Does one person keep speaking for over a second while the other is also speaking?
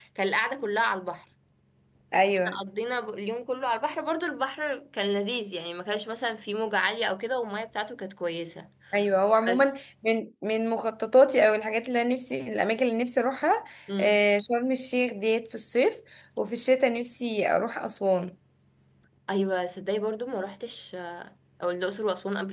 No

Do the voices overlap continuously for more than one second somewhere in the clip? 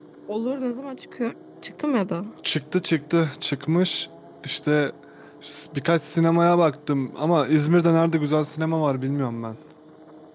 No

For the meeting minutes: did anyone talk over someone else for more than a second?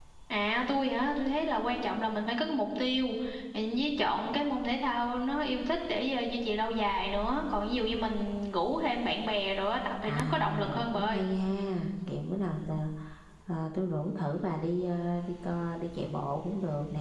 Yes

